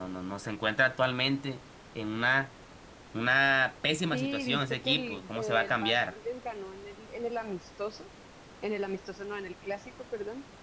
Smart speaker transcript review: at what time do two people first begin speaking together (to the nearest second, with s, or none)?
4 s